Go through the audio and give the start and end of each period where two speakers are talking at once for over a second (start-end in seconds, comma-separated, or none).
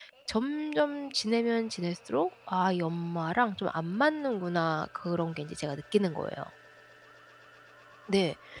none